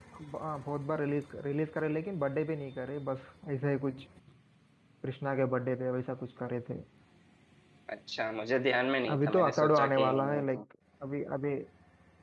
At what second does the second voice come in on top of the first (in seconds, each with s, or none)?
9.1 s